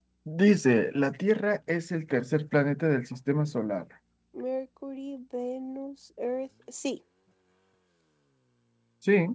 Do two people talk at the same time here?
No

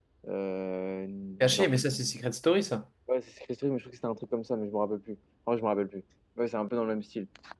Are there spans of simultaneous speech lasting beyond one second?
No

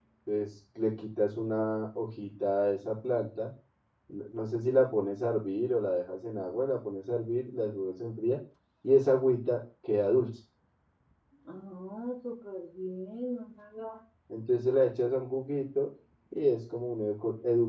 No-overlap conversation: Yes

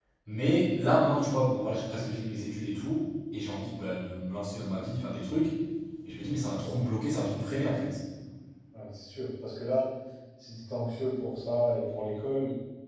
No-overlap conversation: Yes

